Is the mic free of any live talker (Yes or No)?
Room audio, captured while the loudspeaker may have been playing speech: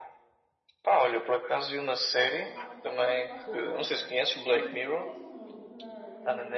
No